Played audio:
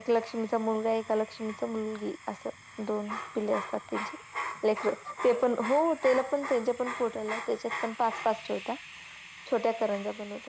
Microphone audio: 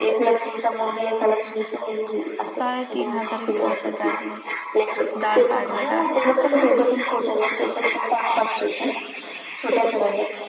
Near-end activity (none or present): present